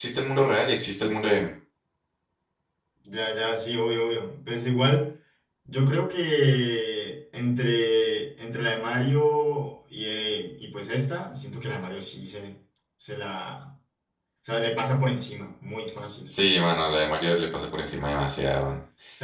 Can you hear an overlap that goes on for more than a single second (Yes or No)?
No